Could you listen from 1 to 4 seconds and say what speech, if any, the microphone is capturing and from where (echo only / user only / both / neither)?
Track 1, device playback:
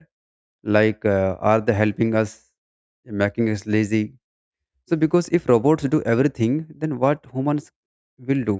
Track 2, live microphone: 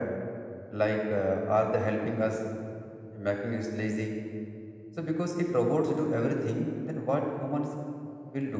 echo only